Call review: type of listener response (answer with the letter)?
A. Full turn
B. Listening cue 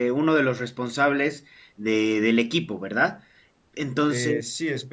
A